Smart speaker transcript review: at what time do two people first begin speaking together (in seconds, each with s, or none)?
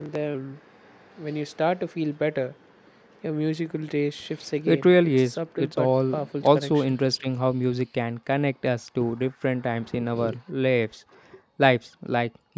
4.7 s